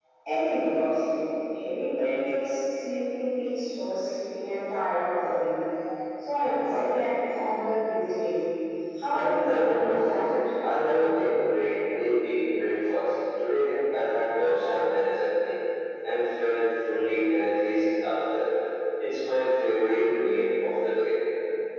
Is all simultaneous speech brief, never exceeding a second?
No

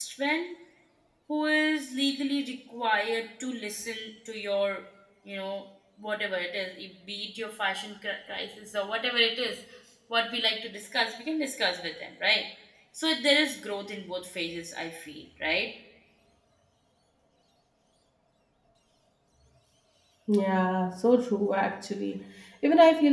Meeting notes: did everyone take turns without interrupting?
Yes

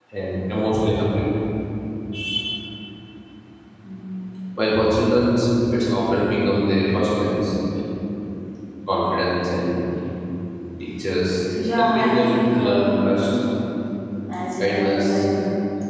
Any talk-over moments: Yes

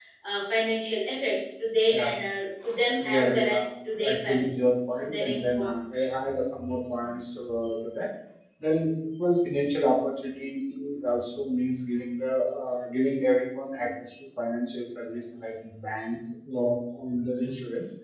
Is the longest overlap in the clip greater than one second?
Yes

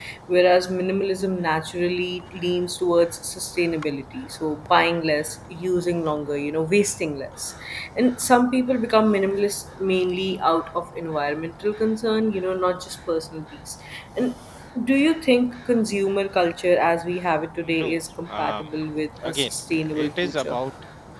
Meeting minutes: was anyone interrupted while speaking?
Yes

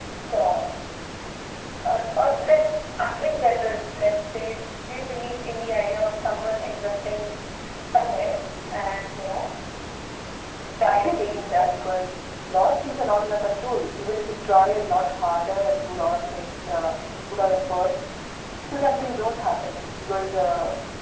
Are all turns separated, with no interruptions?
No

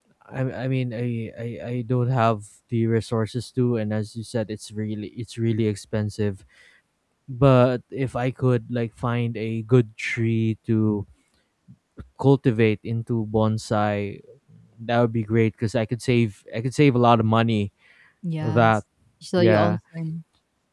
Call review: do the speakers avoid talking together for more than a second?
Yes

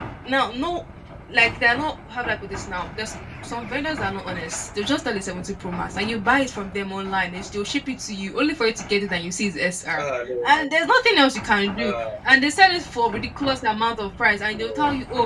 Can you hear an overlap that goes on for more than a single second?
No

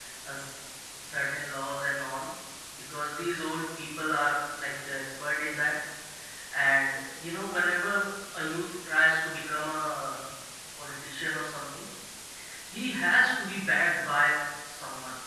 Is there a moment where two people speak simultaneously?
No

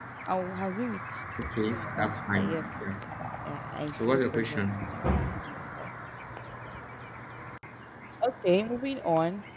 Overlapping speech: Yes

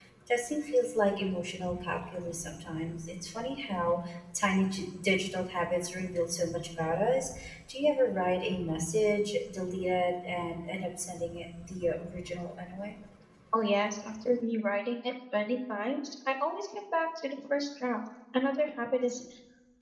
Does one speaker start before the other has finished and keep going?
No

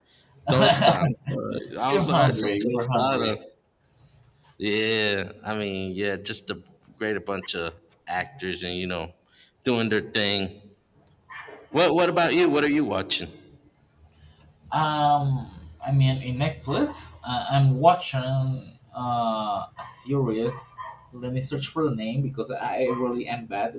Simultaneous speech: Yes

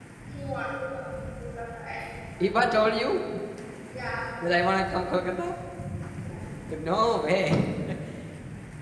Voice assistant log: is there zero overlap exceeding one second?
Yes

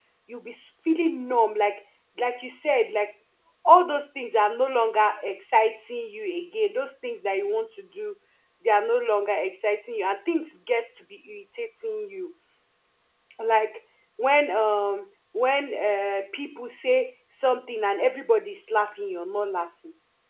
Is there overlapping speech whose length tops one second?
No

